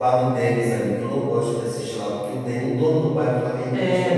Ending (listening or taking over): taking over